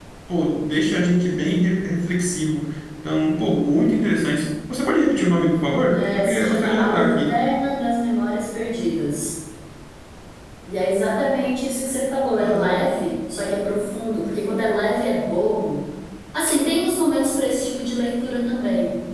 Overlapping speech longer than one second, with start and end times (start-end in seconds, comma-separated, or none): 5.9-7.3